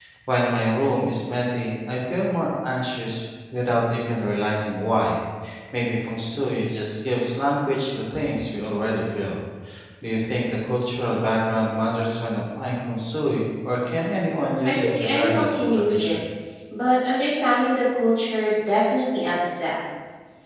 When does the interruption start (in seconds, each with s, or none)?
14.6 s